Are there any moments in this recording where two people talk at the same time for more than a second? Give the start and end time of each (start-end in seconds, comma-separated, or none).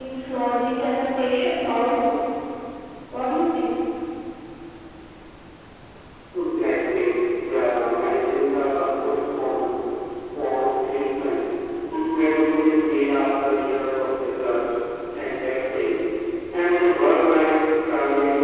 none